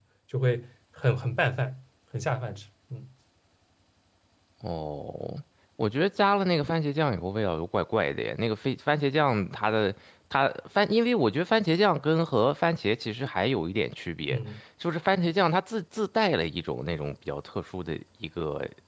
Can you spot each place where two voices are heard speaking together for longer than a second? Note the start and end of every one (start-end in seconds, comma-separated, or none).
none